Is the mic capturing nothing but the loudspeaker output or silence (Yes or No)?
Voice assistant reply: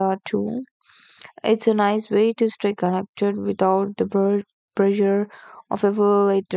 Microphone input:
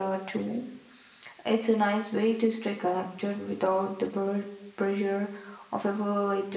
Yes